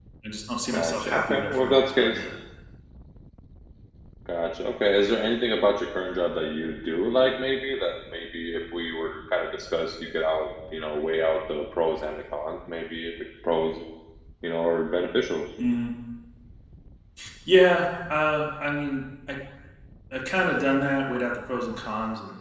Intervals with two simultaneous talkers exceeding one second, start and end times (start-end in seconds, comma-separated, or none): 0.7-2.2